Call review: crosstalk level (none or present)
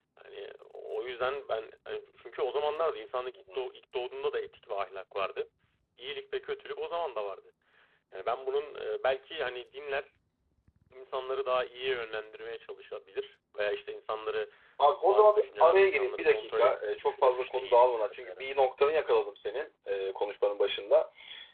present